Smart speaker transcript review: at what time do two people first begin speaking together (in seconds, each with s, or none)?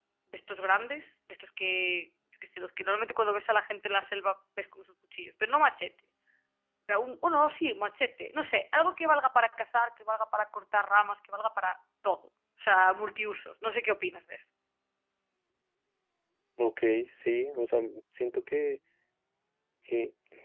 none